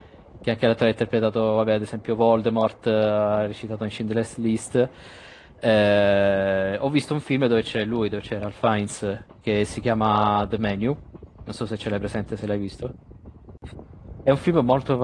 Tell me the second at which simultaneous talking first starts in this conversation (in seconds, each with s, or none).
none